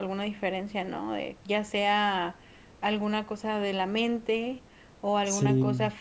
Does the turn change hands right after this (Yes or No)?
No